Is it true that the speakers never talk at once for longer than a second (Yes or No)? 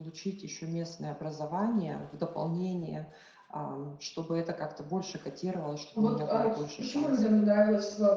No